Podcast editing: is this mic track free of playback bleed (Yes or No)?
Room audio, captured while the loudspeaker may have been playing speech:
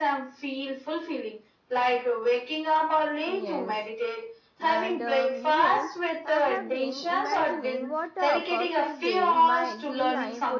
No